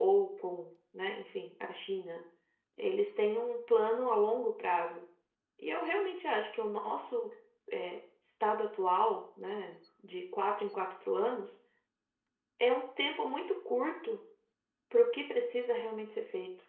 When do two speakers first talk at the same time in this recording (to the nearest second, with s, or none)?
none